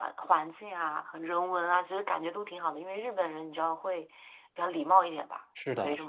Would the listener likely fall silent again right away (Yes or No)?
No